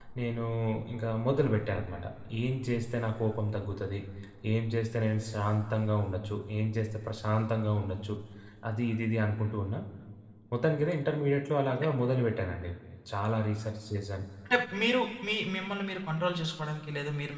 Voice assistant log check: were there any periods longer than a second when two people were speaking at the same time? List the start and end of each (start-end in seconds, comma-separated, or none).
none